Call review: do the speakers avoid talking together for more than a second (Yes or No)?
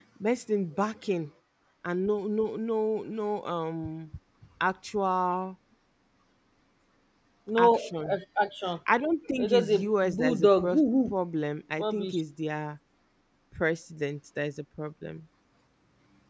No